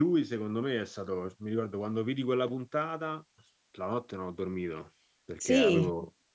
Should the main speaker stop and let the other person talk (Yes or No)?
No